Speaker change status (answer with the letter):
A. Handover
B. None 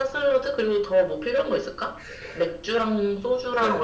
A